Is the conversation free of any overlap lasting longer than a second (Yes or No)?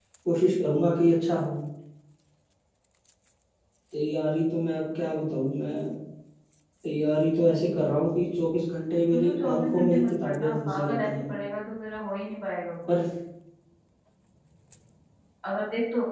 No